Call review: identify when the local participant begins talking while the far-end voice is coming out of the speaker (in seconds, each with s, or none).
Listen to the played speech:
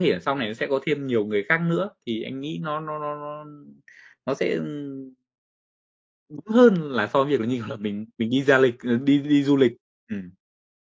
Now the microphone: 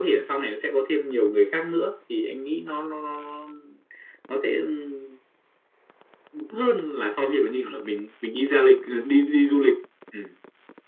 none